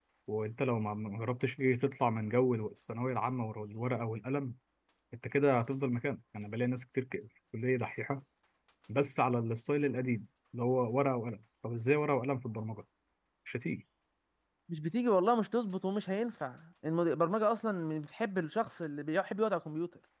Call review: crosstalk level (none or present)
none